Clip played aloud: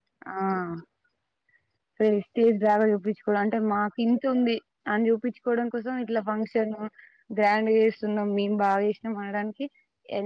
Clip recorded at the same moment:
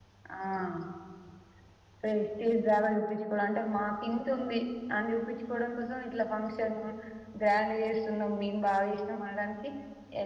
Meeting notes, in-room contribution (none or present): none